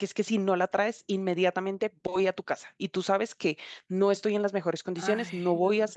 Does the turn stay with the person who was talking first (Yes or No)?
Yes